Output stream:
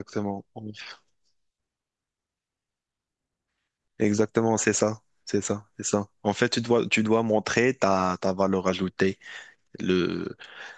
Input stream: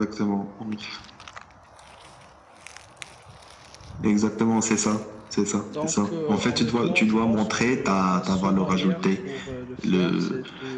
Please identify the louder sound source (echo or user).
echo